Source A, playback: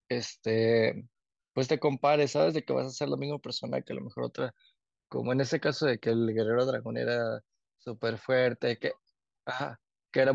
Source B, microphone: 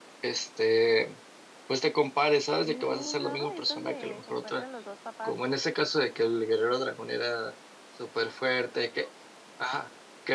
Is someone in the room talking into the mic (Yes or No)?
Yes